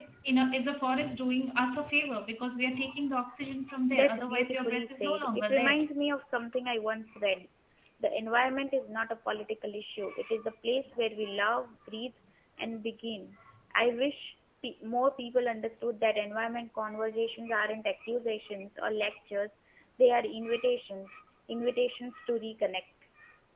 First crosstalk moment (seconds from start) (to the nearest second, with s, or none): 4 s